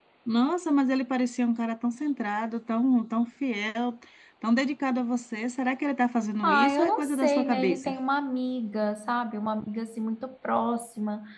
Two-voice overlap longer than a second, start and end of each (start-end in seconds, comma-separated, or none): 6.4-8.0